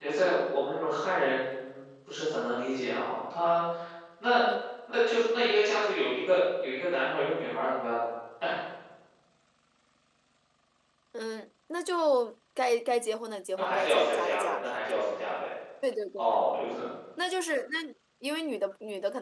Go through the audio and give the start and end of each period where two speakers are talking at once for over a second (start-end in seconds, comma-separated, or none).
13.6-14.8